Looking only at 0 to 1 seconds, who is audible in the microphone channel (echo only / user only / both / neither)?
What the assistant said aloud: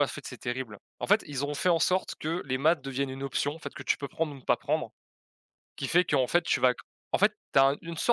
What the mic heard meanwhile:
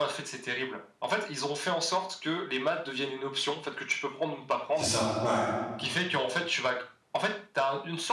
echo only